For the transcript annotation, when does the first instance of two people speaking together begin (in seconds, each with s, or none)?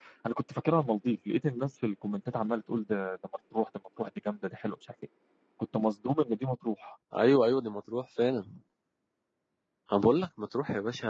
none